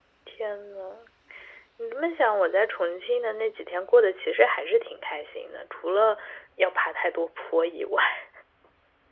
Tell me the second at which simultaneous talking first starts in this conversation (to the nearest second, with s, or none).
none